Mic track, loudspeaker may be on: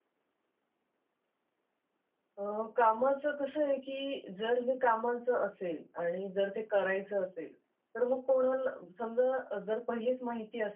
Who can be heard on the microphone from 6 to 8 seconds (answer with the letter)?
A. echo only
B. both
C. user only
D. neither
C